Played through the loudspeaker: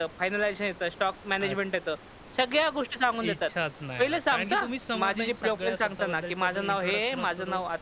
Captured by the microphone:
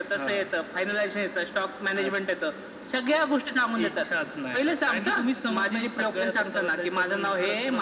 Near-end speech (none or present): none